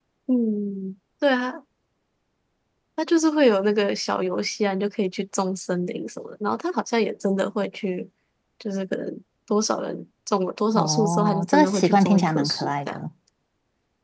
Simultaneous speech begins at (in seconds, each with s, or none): 10.8 s